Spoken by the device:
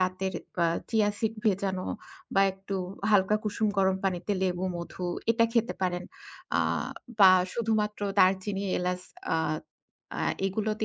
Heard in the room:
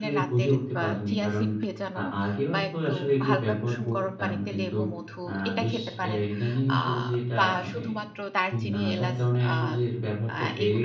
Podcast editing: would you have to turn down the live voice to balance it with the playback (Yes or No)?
Yes